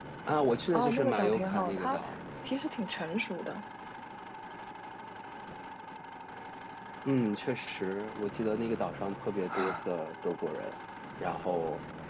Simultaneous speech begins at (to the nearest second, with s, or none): 1 s